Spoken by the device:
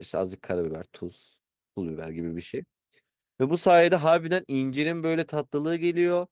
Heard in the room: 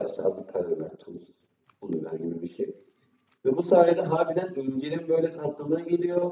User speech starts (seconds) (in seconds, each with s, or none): none